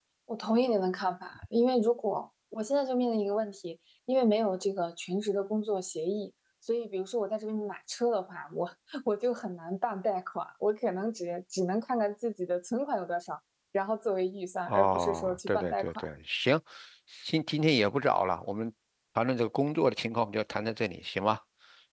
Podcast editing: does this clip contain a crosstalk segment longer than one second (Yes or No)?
Yes